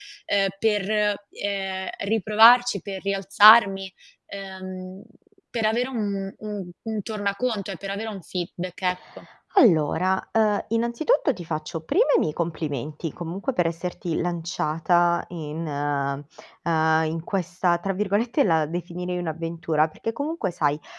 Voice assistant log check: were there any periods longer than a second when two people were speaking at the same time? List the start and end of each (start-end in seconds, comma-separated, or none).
none